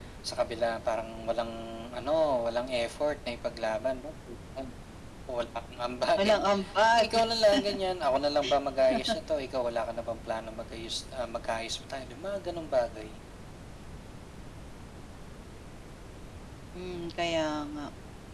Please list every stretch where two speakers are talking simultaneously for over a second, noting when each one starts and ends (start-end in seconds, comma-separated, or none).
none